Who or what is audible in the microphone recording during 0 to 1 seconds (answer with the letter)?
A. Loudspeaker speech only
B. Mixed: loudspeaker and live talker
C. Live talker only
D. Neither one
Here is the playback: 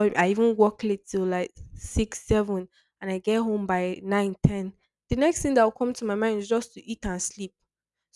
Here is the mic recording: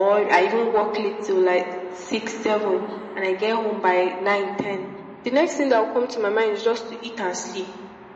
A